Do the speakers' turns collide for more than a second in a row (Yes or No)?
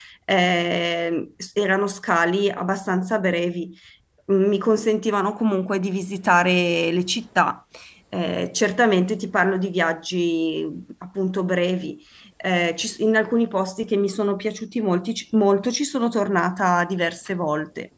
No